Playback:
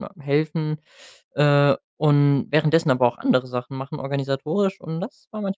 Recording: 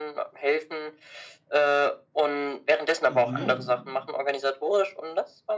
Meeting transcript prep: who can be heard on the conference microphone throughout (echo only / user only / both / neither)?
both